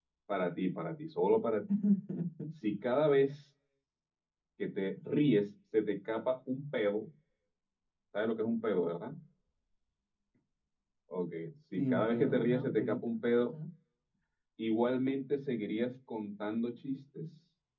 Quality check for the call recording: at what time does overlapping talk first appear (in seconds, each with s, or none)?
11.8 s